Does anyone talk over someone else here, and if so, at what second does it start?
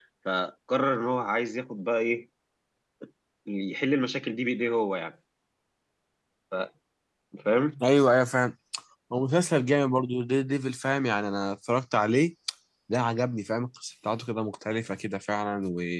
none

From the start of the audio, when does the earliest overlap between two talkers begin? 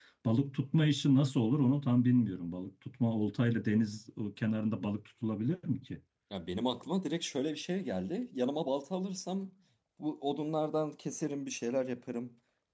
none

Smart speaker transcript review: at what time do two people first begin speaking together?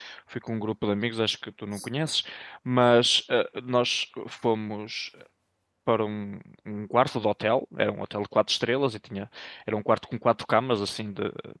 none

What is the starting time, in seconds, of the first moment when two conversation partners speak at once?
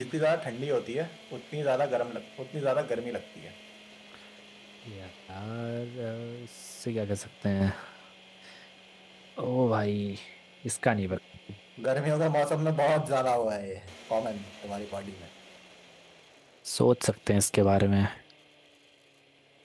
none

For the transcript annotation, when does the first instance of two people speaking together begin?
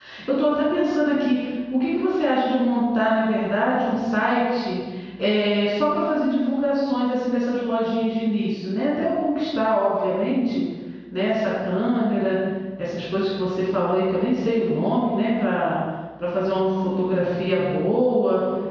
none

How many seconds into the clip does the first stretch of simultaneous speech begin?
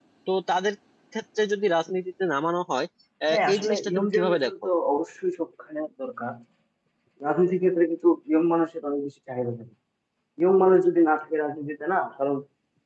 3.3 s

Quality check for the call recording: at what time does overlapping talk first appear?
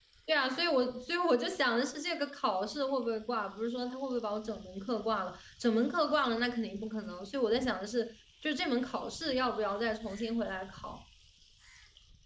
none

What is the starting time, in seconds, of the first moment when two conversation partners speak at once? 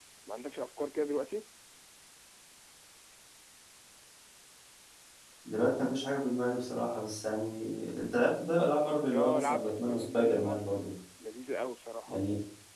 9.1 s

